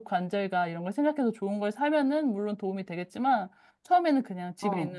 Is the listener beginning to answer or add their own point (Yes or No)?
No